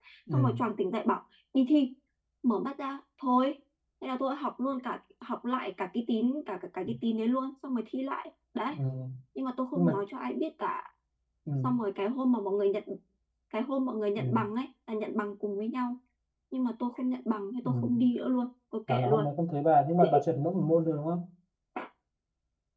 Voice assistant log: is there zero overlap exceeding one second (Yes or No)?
Yes